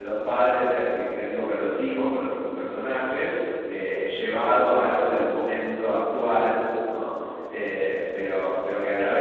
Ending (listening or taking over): listening